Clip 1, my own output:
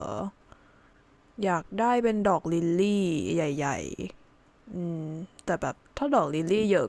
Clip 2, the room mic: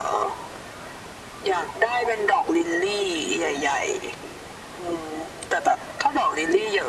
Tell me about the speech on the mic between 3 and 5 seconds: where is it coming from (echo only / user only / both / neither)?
echo only